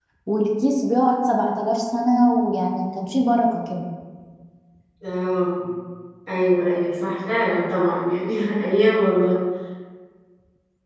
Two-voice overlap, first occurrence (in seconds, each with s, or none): none